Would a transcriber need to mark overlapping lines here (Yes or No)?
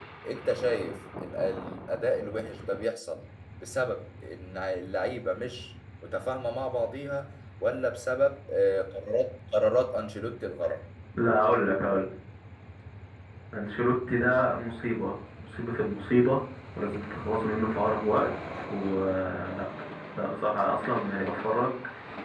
No